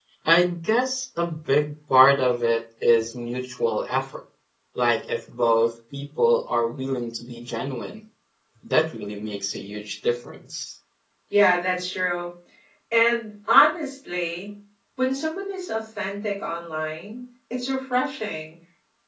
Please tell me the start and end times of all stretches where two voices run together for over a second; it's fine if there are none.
none

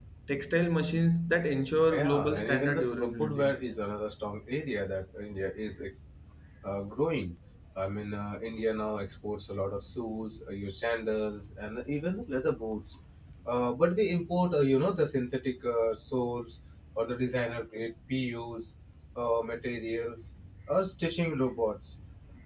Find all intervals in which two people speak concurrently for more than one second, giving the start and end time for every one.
1.9-3.6

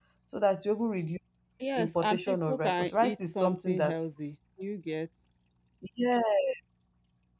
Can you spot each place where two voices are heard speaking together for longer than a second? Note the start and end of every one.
1.8-4.0

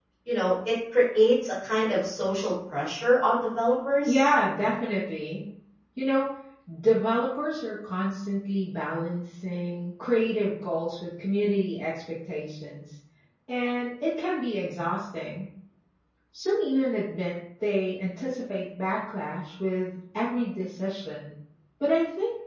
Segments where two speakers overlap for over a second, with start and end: none

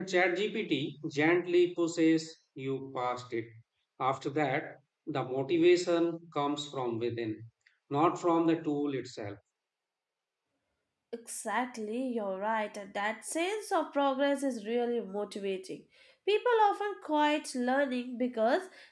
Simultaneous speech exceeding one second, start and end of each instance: none

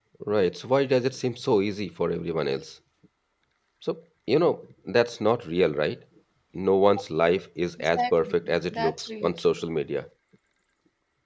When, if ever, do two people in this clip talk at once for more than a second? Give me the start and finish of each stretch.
7.8-9.6

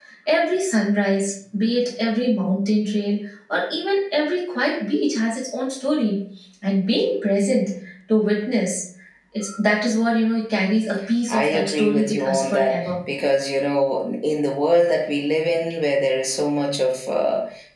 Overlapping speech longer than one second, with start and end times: 11.3-12.8

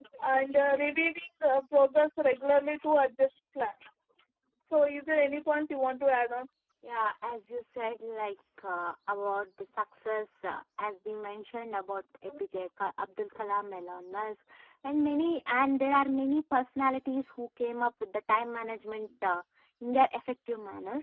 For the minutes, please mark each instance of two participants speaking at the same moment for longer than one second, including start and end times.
none

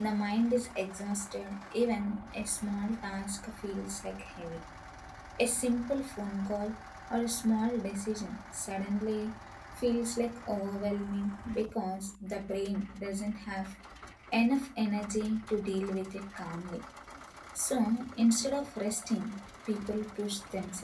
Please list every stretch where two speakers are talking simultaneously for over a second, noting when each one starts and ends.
none

